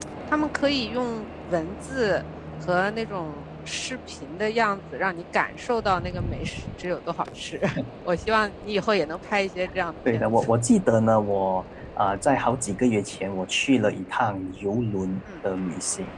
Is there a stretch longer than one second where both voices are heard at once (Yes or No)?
No